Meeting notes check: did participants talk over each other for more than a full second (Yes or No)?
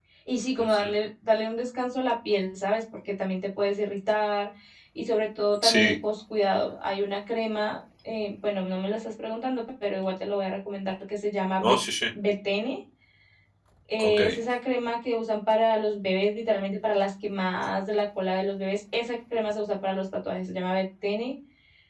No